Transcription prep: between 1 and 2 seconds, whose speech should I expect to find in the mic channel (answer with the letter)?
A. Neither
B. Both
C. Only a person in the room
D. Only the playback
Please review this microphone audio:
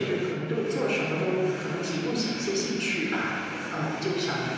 D